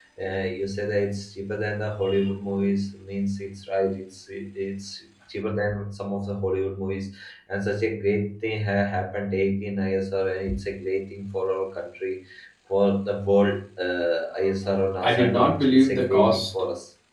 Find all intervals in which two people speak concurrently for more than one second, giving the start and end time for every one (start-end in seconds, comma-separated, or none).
15.0-16.4